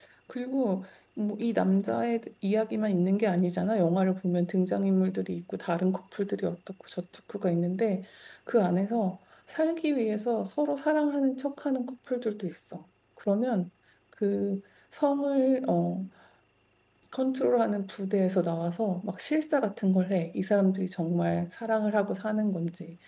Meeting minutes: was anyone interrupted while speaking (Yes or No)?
No